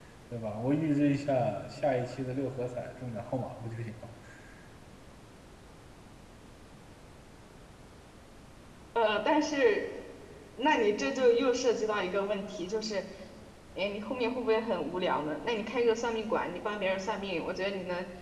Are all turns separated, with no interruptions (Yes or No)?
Yes